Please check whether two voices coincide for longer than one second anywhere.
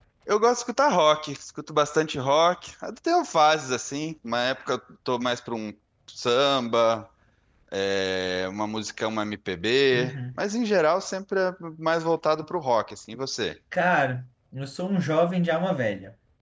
No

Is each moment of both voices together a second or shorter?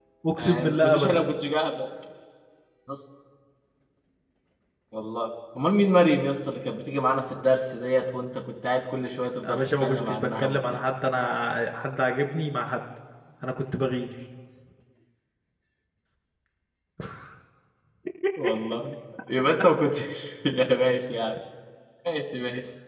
No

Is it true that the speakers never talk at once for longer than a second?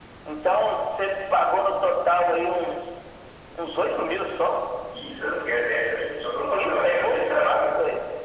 No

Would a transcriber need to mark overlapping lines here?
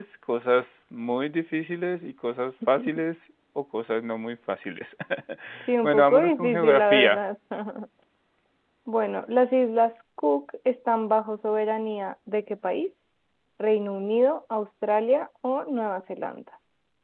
Yes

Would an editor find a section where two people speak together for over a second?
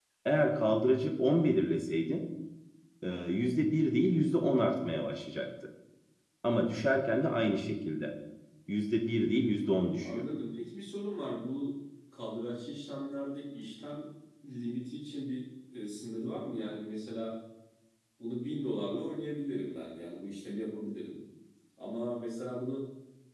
No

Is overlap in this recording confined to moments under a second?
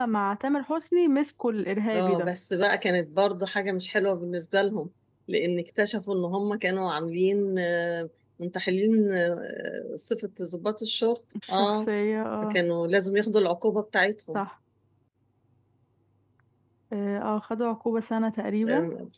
Yes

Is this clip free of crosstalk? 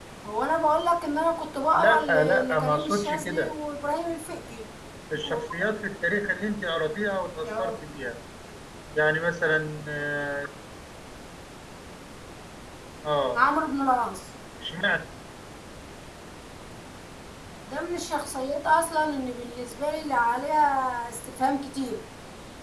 No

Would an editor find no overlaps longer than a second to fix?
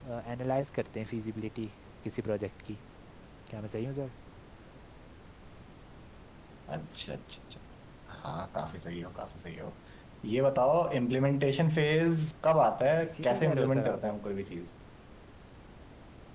No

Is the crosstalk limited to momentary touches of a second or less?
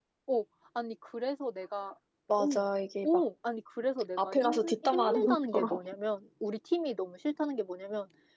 No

